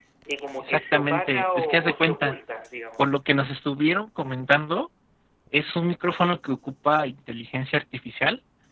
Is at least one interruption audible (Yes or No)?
Yes